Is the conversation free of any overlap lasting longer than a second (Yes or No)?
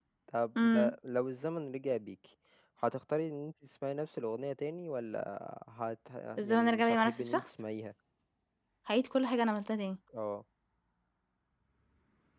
No